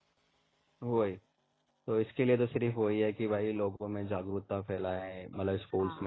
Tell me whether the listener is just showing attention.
Yes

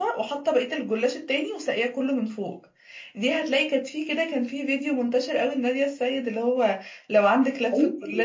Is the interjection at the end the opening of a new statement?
Yes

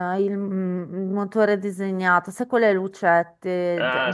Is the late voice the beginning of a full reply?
Yes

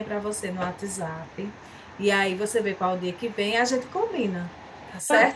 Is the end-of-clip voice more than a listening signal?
Yes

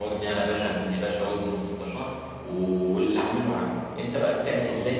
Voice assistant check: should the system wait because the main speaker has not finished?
No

